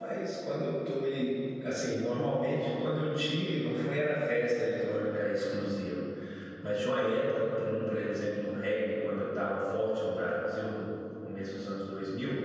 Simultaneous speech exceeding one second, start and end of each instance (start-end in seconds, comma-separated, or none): none